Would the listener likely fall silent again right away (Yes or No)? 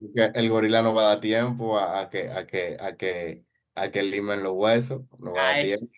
No